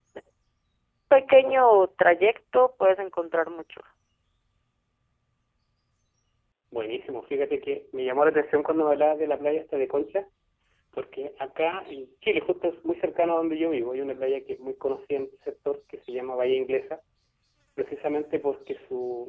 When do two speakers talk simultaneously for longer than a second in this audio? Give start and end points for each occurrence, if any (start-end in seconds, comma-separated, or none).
none